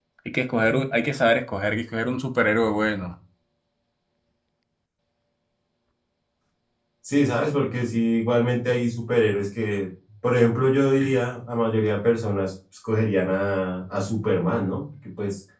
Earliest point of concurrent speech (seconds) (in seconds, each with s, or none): none